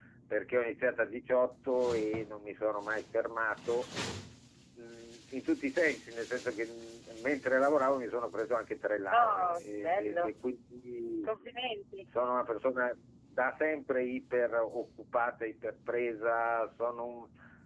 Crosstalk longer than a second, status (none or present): present